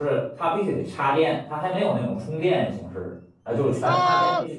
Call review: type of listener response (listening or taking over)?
taking over